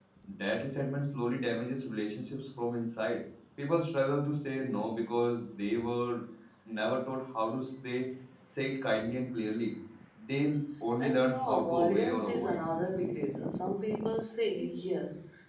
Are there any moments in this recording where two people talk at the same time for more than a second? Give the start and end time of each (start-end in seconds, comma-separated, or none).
11.0-12.6